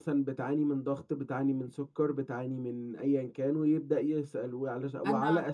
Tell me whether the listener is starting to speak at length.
No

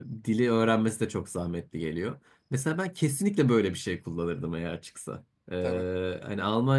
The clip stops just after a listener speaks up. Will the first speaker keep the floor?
Yes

